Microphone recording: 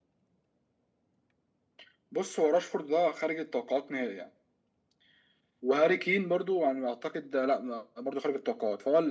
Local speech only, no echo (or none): none